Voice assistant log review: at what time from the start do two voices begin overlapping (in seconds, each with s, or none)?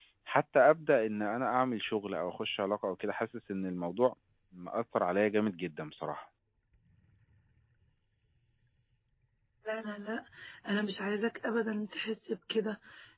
none